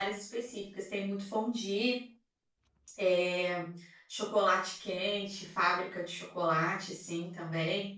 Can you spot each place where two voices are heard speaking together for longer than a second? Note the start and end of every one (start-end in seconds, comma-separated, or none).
none